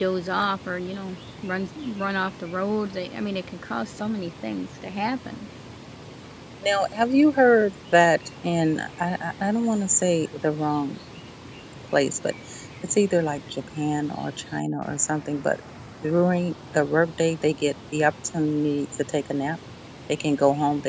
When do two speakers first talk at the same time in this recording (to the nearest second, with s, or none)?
none